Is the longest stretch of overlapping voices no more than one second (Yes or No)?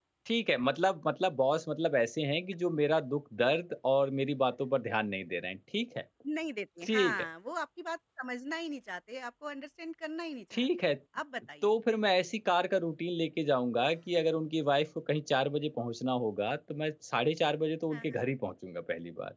Yes